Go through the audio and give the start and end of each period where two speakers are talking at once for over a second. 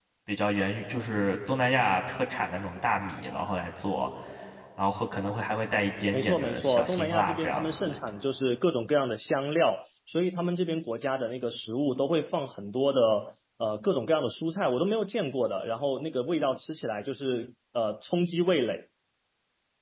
6.1-8.0

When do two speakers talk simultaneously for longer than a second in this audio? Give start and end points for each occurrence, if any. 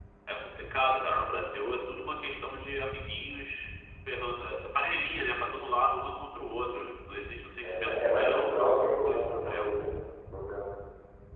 7.6-9.7

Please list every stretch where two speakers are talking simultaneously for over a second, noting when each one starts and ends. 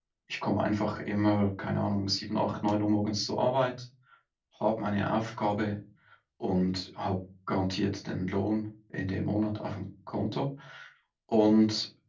none

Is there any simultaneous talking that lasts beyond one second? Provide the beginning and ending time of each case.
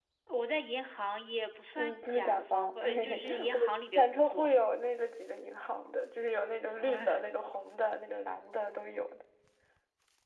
1.8-4.5

